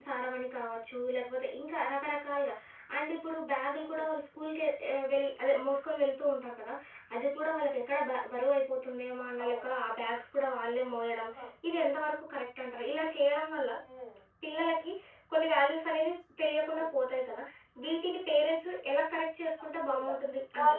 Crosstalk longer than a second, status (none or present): none